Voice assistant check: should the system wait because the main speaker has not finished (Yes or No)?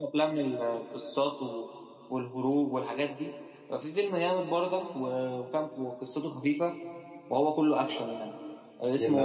Yes